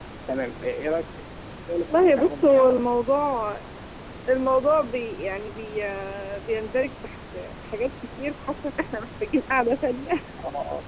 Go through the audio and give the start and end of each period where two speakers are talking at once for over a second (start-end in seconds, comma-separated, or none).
1.8-3.0